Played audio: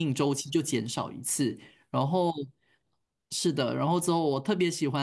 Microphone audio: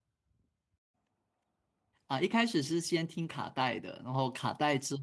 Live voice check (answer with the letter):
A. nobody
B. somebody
B